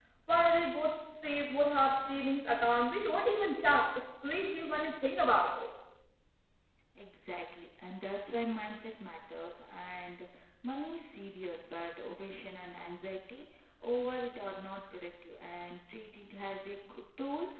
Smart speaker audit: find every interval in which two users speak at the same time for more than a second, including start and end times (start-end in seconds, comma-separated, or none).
none